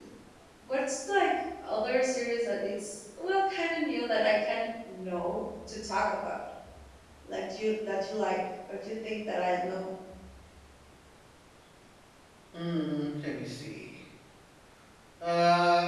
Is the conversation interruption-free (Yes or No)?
Yes